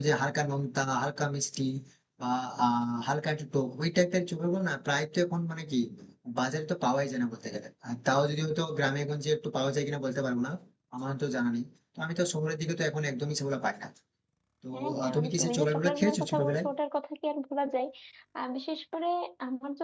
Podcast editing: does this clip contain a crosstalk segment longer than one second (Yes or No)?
Yes